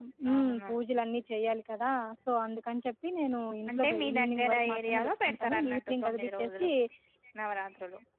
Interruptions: present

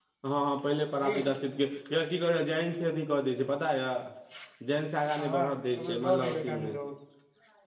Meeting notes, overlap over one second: present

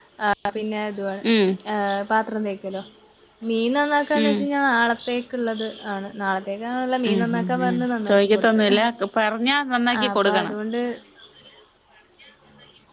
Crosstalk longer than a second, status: present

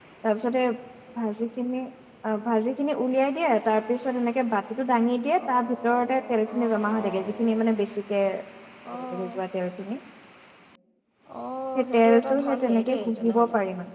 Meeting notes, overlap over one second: present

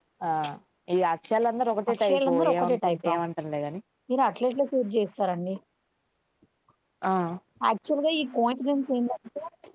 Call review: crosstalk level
present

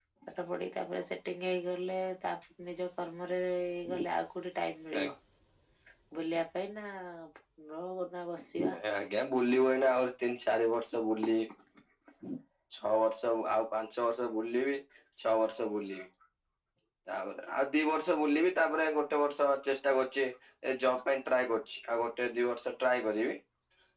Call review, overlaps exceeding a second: none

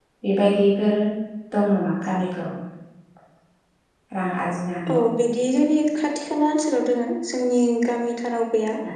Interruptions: none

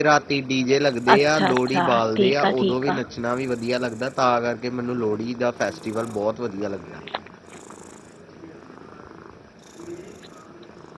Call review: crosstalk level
present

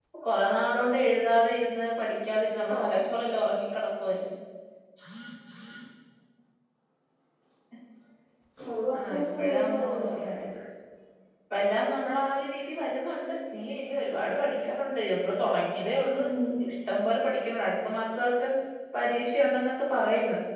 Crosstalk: present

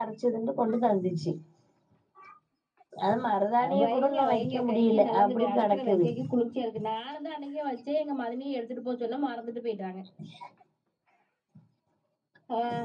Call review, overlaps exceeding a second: present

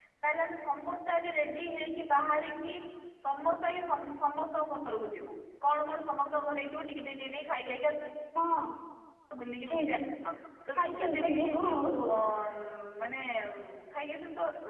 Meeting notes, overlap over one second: present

